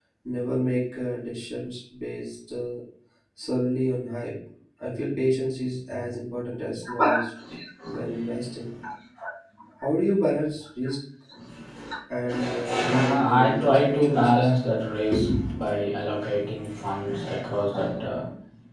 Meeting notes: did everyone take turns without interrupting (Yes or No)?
No